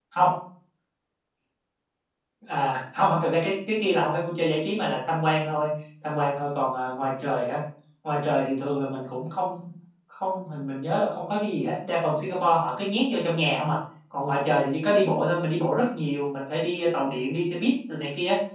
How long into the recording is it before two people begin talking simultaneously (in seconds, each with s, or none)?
none